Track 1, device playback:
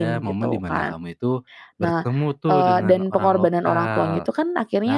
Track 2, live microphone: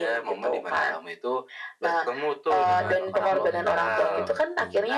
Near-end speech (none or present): present